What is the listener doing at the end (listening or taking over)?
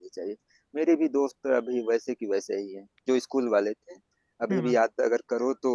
listening